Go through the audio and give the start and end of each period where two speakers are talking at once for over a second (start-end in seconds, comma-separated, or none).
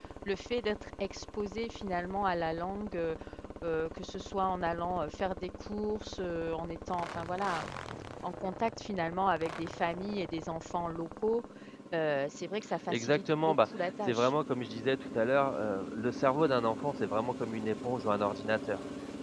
12.9-14.3